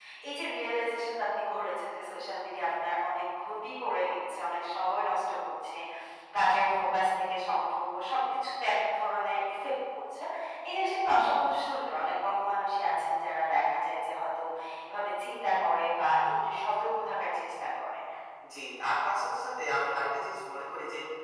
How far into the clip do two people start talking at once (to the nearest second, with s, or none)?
none